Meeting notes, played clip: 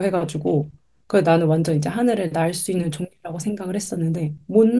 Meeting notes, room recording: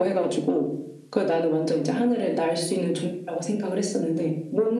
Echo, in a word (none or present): present